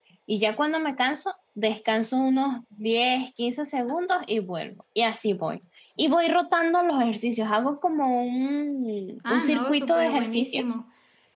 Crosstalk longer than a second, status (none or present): present